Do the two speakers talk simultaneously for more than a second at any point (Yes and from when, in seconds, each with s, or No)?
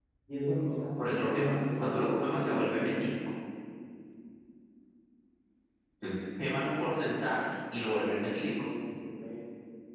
Yes, from 1.0 s